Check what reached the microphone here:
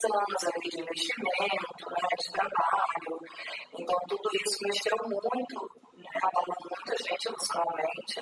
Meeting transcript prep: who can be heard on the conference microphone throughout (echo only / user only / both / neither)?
echo only